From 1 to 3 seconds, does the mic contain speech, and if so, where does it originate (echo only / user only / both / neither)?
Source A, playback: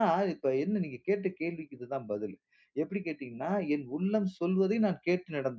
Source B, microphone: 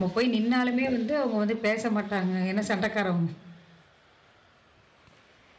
user only